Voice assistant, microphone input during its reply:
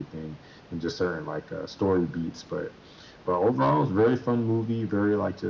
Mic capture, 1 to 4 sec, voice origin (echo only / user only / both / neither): echo only